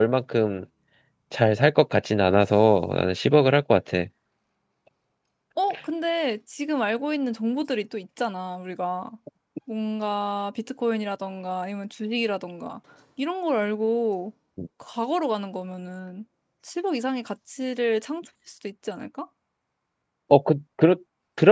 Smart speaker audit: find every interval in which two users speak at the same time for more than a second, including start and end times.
none

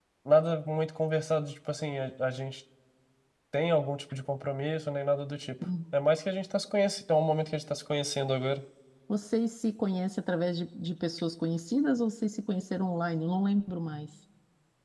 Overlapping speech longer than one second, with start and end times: none

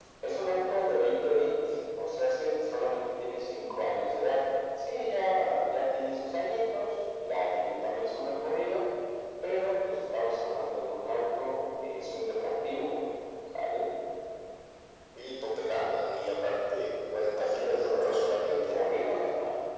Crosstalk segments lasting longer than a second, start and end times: 17.4-18.8

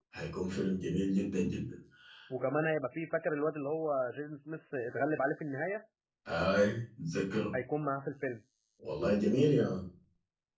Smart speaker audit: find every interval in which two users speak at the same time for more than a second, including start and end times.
none

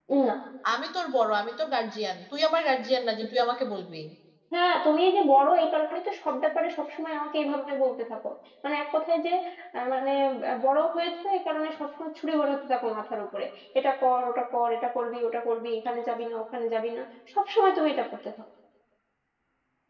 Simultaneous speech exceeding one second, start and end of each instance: none

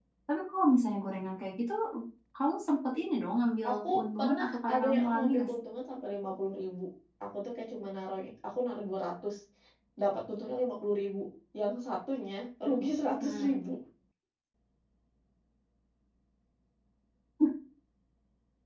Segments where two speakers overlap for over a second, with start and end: 3.7-5.5

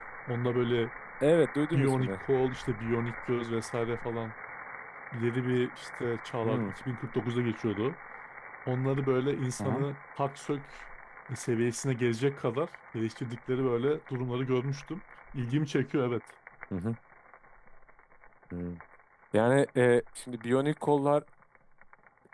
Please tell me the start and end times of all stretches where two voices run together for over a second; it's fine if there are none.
none

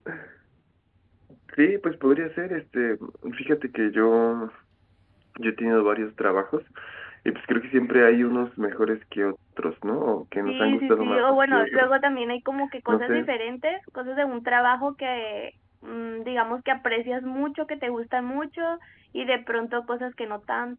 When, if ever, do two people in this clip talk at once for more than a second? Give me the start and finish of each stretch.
10.4-11.9

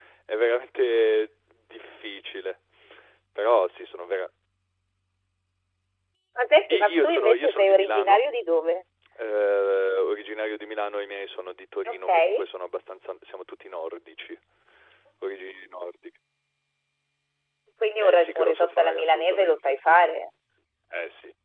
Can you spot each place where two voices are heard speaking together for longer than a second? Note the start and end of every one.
6.7-8.2, 18.0-20.1

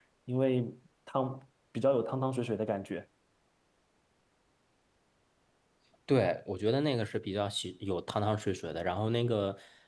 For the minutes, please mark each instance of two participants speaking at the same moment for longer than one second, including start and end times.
none

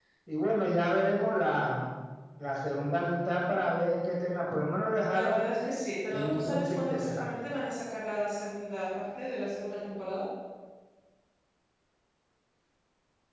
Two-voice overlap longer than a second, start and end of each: 6.1-7.3

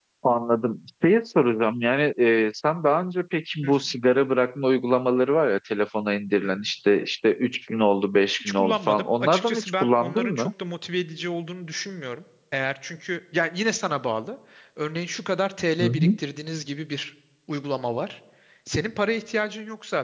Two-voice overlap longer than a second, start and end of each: 8.4-10.5

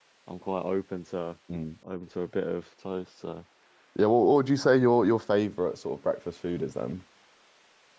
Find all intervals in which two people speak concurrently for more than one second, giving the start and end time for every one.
none

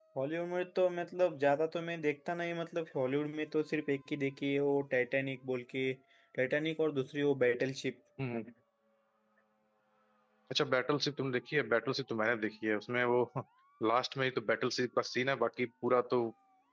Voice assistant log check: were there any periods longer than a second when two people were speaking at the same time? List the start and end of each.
none

